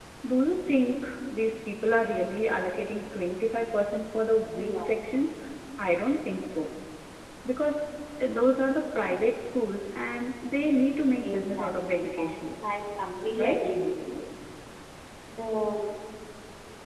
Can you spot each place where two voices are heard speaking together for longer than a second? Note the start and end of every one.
11.2-12.5

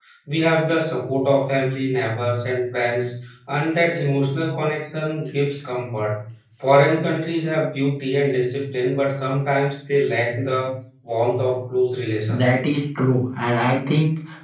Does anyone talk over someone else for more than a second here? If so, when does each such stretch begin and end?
none

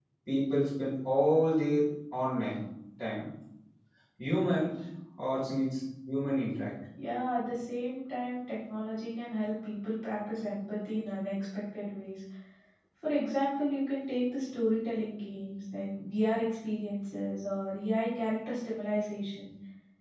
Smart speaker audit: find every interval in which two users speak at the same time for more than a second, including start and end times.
none

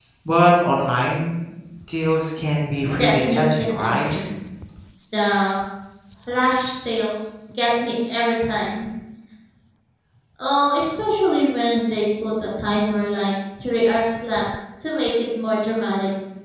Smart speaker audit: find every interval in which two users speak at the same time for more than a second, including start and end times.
3.0-4.2

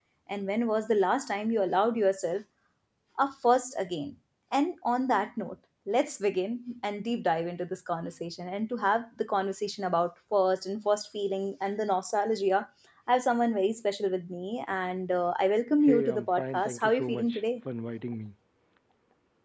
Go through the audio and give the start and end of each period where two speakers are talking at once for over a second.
15.9-17.4

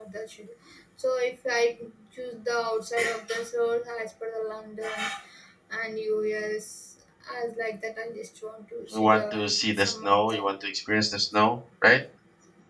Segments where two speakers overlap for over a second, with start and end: 8.9-10.5

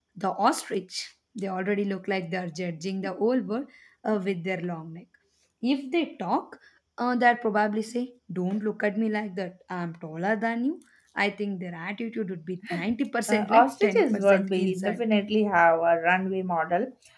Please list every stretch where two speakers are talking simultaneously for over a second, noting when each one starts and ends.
13.3-15.0

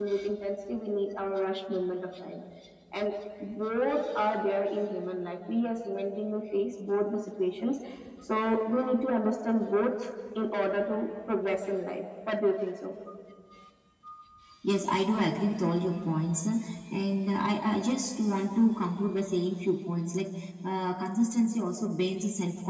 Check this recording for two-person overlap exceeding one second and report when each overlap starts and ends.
none

